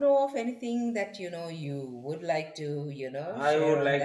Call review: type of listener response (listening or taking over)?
taking over